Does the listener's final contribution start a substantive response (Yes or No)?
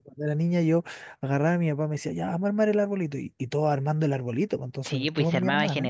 Yes